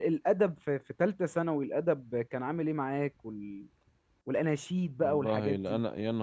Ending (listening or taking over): taking over